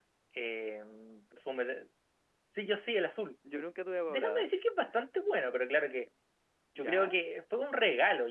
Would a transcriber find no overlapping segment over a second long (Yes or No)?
Yes